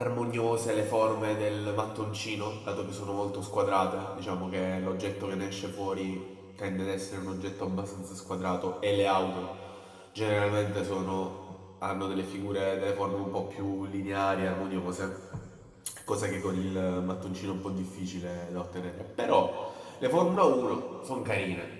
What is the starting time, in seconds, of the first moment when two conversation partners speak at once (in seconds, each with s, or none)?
none